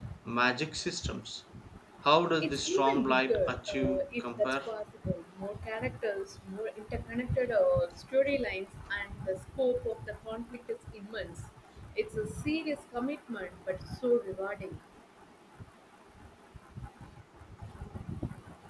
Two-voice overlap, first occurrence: 2.4 s

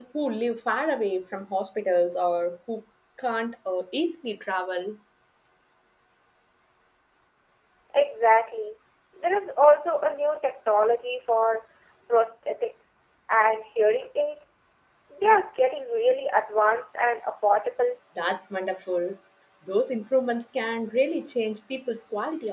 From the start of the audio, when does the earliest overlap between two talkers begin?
none

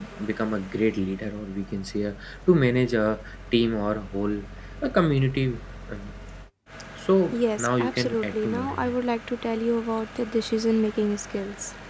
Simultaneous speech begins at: 7.3 s

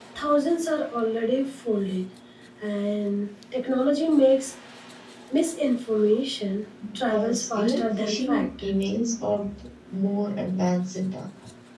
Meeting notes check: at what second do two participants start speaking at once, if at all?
7.1 s

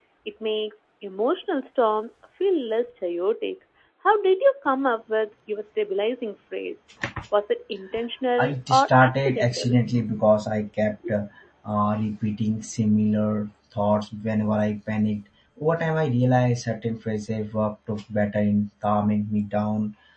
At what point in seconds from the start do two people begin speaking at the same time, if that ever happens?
8.4 s

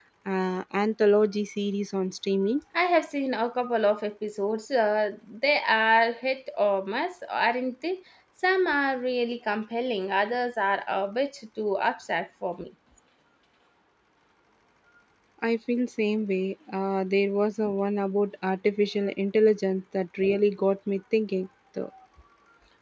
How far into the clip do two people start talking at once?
none

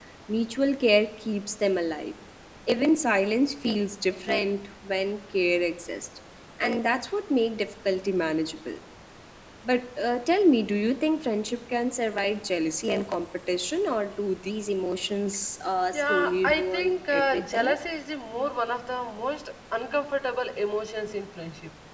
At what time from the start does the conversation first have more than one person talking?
15.9 s

